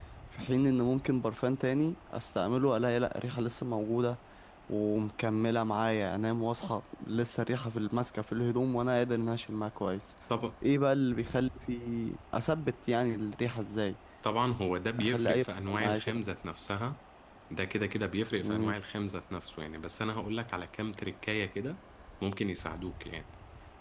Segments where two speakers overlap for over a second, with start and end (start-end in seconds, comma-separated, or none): 15.0-16.2